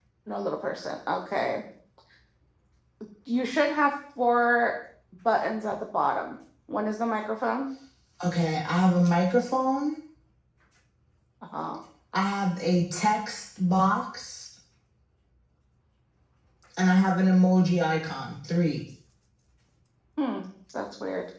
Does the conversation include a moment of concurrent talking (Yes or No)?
No